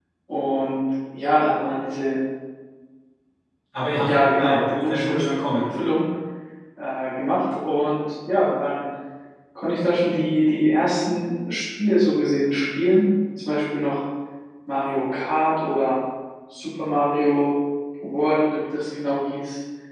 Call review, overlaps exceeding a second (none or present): present